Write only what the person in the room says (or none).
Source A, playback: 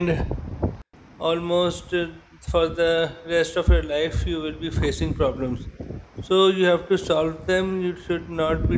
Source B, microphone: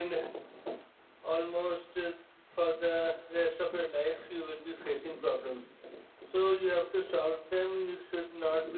none